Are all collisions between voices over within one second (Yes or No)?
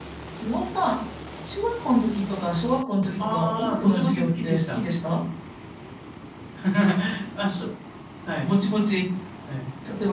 No